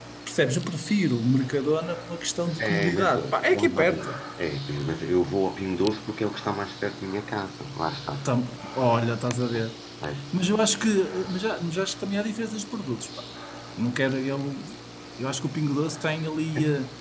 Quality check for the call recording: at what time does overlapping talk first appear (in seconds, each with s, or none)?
2.6 s